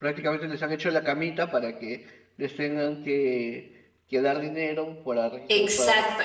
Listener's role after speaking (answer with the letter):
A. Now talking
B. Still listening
A